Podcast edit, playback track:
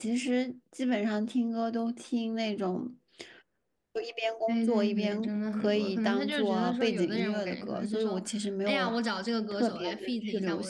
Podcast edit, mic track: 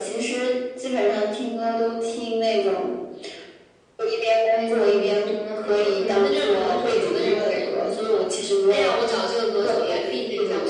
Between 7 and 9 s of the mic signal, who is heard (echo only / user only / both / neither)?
echo only